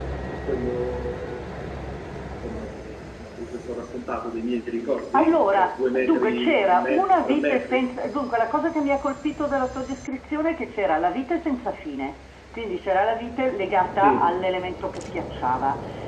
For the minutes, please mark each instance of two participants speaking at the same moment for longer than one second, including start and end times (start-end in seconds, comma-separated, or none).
5.2-7.8